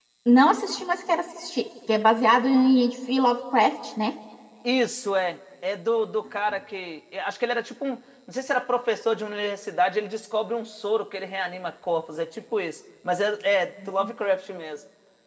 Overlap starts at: none

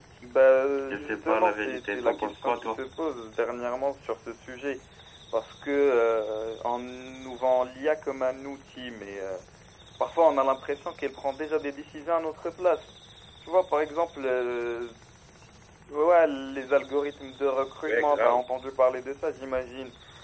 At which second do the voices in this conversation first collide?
0.9 s

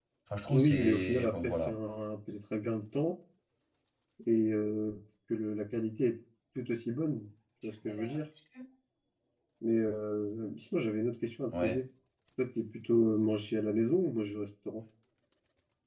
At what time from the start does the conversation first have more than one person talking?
0.5 s

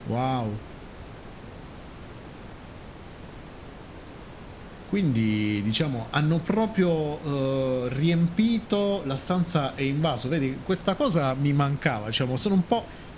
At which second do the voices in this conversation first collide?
none

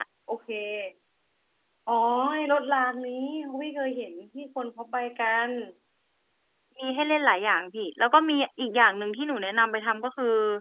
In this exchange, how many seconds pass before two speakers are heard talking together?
none

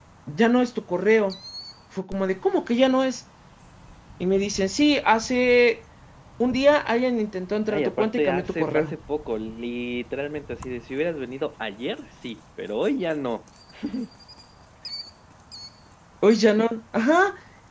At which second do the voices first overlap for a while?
7.7 s

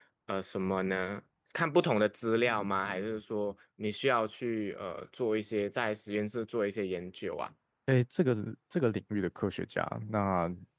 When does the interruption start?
none

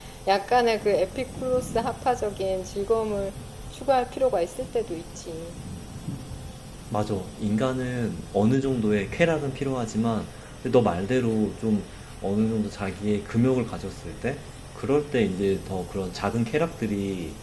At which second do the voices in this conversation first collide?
none

